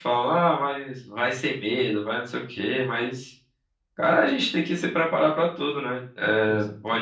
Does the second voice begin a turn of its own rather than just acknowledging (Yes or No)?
No